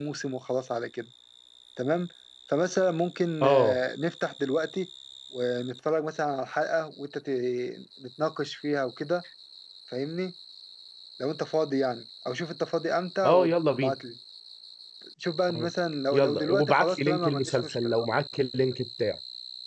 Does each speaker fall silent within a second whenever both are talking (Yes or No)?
No